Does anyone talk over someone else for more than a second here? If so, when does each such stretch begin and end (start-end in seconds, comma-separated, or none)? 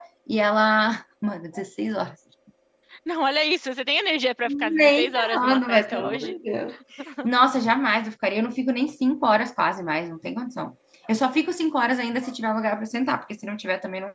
4.7-6.3